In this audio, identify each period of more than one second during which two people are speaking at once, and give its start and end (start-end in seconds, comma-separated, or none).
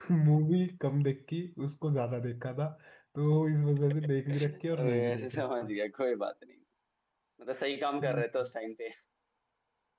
4.5-5.7